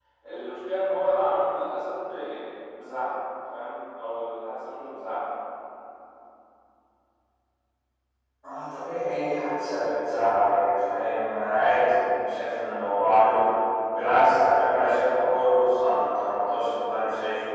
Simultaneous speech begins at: none

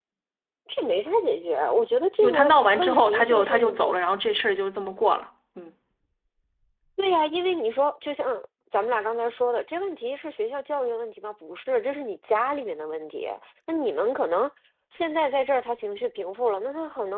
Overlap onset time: 2.2 s

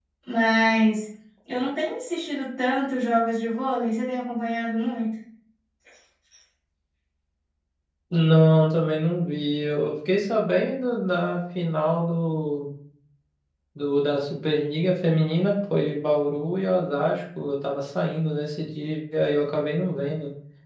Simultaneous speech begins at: none

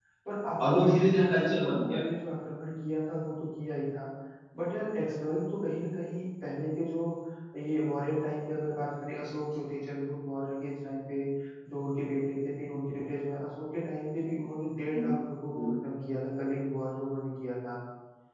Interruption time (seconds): 0.6 s

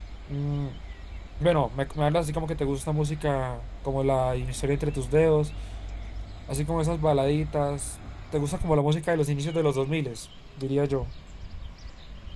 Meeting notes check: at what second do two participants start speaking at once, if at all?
none

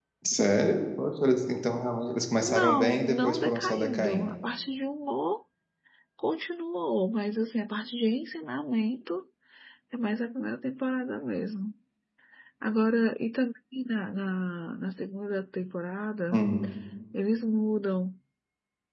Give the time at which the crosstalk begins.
2.4 s

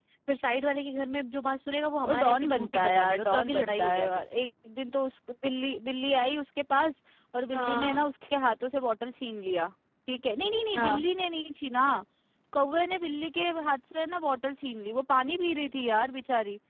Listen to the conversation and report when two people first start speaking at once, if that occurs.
2.0 s

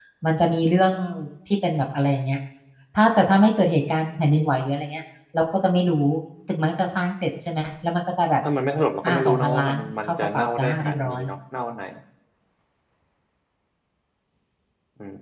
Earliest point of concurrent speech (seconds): 9.0 s

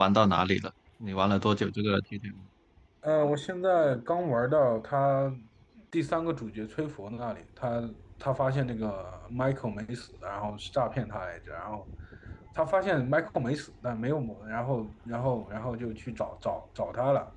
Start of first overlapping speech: none

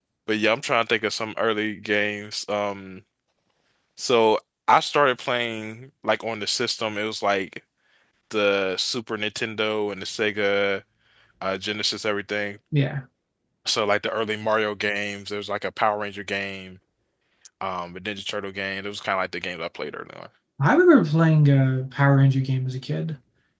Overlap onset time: none

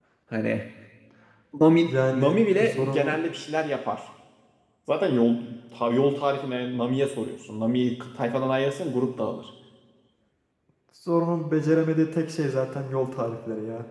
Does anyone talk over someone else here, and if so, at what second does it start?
1.9 s

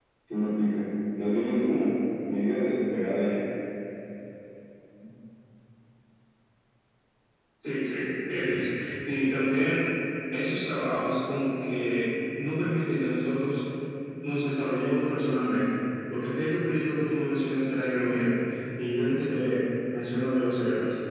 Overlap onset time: none

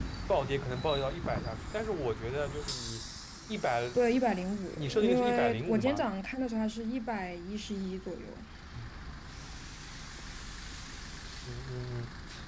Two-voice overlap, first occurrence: 4.8 s

